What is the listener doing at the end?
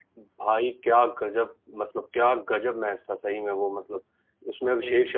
listening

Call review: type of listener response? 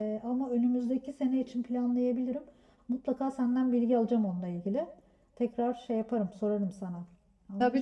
taking over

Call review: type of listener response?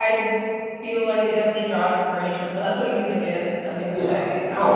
taking over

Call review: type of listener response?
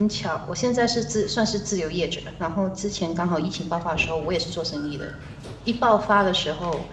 listening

